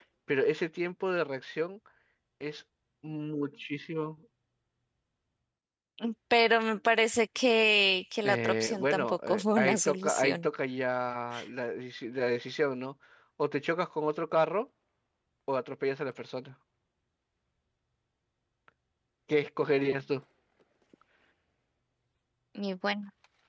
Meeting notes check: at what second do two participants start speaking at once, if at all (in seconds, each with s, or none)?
8.2 s